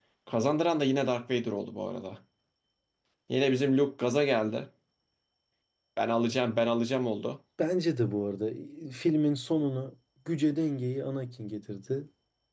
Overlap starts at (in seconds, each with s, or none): none